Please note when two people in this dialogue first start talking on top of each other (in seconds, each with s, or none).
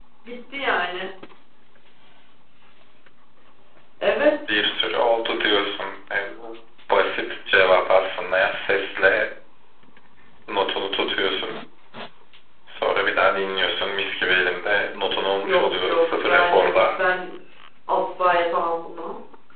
15.4 s